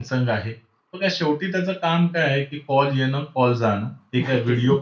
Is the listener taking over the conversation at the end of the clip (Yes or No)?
No